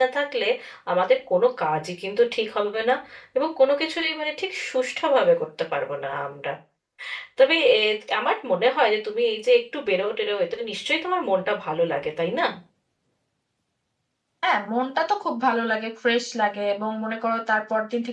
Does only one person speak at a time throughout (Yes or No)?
Yes